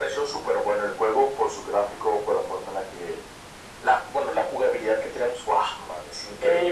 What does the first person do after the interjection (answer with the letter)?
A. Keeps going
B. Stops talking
B